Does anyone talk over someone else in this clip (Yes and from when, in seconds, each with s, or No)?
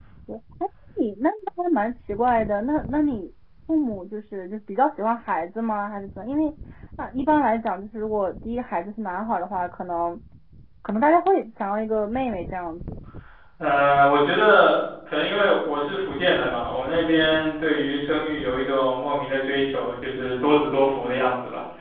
No